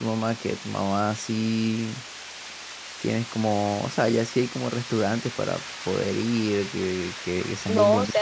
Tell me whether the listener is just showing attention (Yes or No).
No